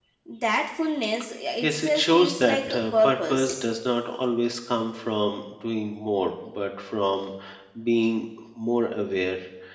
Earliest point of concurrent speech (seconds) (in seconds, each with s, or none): 1.6 s